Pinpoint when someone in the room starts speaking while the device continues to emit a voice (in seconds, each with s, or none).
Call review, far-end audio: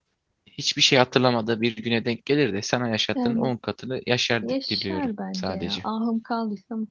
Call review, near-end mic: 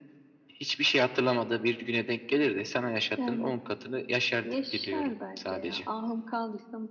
none